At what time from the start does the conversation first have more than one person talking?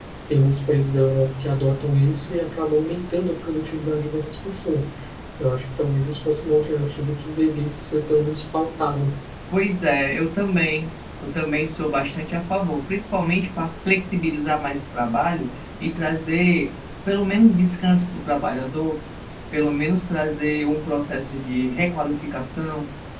none

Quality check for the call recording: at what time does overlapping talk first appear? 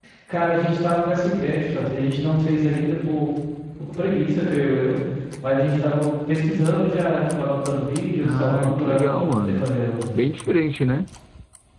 8.2 s

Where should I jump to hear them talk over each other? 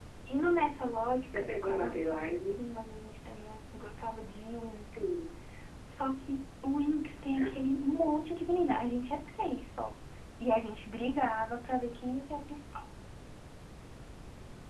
1.2 s

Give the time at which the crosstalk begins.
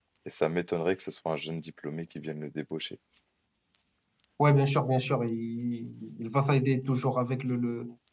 none

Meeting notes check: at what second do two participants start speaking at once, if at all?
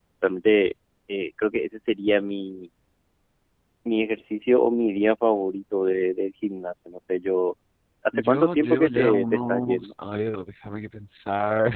8.1 s

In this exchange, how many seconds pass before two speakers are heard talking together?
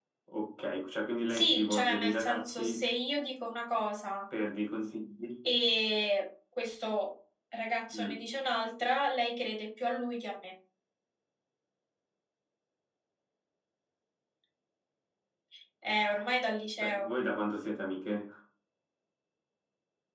1.3 s

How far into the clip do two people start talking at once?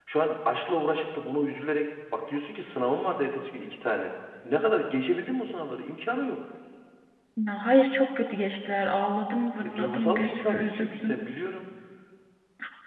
9.6 s

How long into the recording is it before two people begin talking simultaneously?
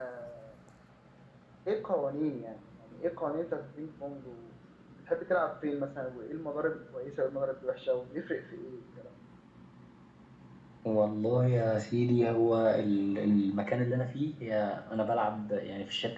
none

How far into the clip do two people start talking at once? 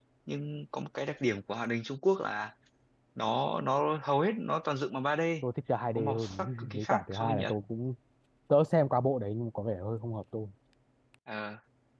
6.0 s

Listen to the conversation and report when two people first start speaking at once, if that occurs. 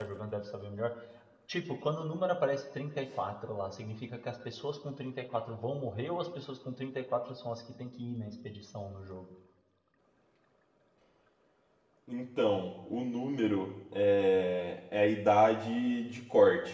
none

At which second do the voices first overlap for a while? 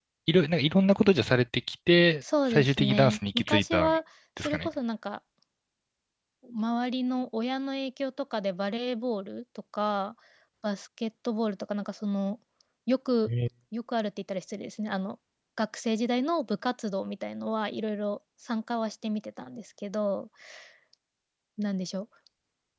2.5 s

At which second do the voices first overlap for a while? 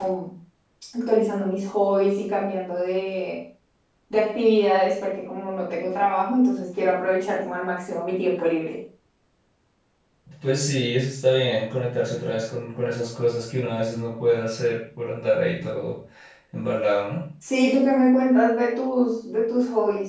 none

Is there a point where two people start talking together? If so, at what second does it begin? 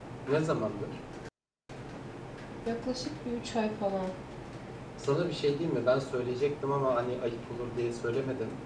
none

